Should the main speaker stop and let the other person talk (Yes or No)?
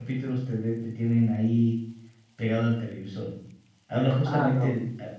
No